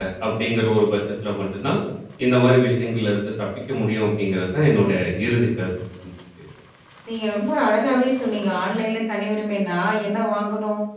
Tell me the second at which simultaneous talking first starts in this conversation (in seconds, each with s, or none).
none